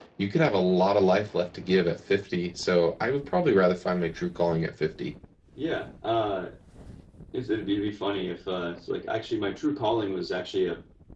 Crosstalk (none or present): none